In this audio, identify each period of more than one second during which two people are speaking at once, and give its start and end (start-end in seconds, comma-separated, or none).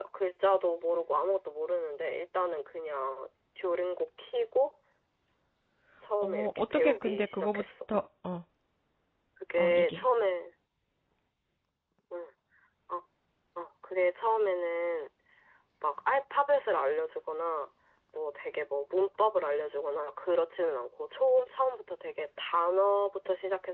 6.2-7.6